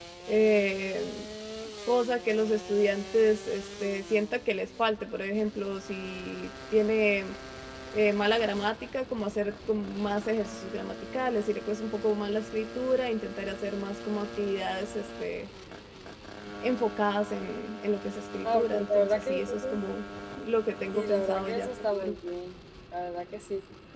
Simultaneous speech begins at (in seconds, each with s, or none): 18.4 s